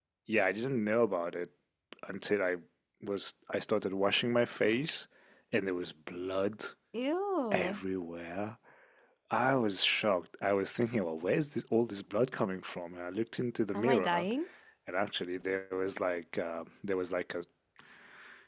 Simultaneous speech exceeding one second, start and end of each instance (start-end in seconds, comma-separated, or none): none